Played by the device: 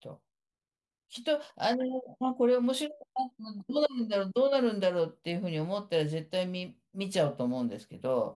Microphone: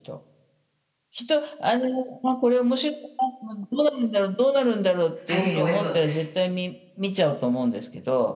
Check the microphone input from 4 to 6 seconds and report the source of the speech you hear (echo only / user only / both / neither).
both